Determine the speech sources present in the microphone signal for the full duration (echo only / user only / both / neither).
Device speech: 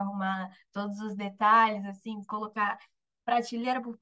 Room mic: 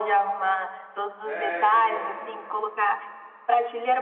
both